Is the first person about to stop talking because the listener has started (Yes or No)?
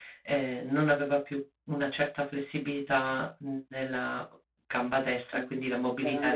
Yes